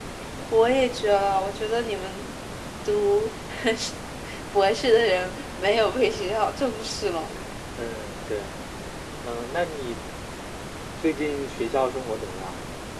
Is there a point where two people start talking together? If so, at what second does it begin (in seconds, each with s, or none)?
none